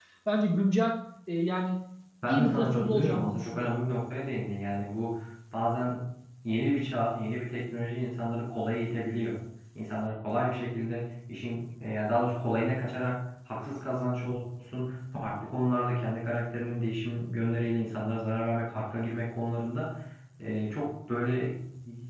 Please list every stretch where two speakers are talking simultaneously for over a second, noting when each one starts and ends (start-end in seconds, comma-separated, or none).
2.3-3.7